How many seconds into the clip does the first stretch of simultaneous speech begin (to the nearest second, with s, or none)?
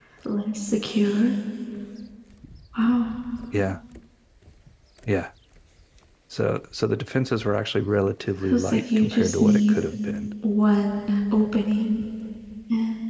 8 s